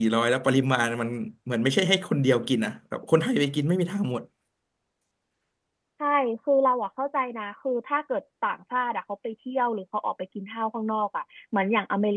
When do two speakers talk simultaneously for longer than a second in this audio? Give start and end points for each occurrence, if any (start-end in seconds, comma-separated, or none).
none